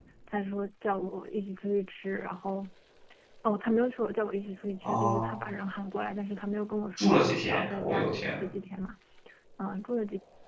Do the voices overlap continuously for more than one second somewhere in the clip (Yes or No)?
Yes